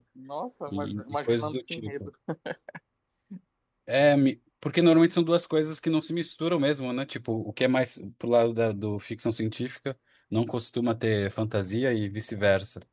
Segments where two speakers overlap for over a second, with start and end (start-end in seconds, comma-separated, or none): 0.7-1.9